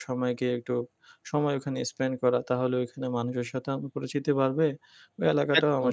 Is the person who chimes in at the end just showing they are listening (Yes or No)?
Yes